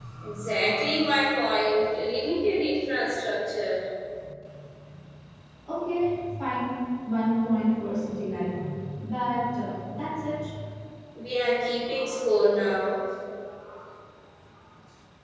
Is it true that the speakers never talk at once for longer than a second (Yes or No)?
Yes